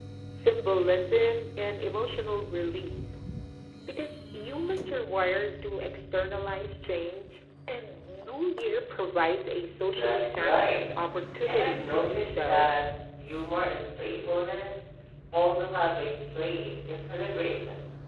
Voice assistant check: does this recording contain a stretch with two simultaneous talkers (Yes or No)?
Yes